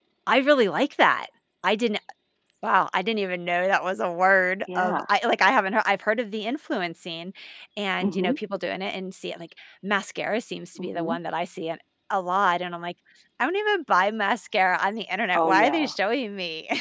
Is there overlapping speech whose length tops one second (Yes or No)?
No